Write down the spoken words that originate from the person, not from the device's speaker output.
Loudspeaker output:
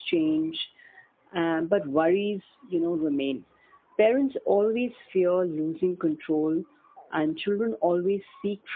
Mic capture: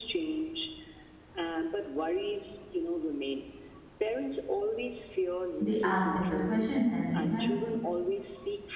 They ask simple questions and need help.

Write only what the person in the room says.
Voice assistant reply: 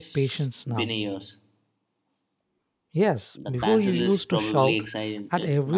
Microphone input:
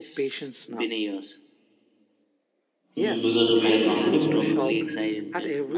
Hmm, because we are comfortable

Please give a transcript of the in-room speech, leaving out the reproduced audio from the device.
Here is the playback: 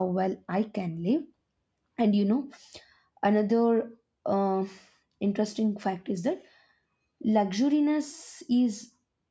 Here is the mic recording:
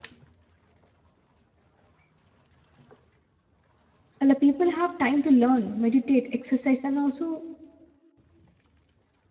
and the people have time to learn meditate exercise and also

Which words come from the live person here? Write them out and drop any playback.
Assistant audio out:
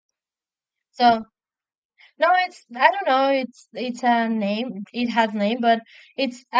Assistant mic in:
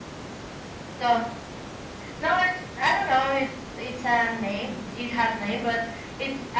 none

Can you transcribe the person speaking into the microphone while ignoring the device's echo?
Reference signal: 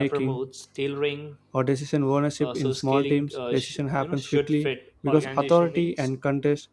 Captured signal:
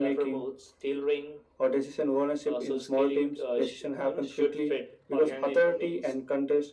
none

